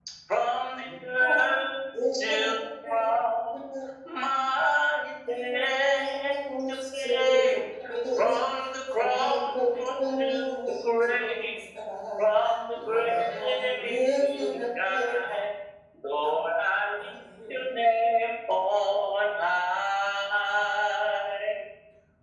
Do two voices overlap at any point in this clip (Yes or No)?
Yes